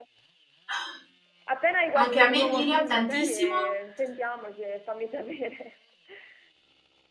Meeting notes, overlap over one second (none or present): present